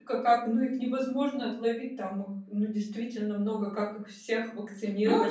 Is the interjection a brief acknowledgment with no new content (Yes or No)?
No